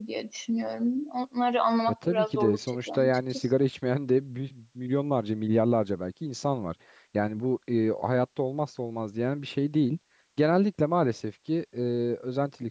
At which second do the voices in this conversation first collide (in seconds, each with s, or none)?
2.0 s